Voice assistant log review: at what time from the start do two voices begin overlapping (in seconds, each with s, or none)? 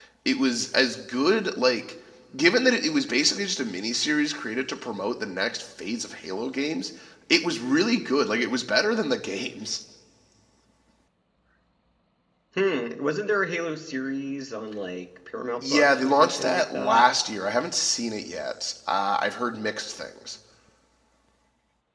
15.6 s